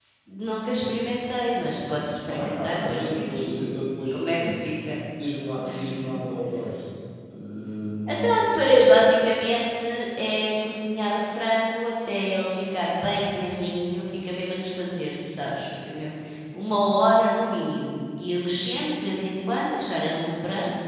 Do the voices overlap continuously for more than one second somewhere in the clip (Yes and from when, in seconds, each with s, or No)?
Yes, from 2.3 s